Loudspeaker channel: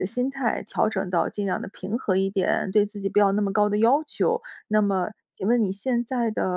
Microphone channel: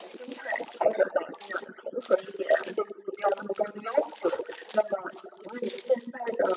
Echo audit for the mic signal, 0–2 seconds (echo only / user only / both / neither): echo only